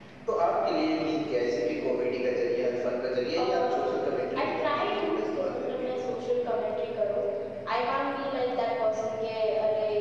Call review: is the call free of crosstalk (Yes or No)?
No